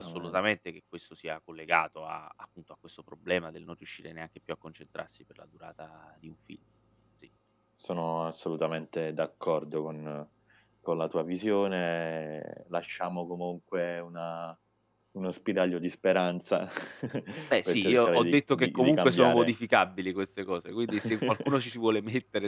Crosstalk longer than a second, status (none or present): present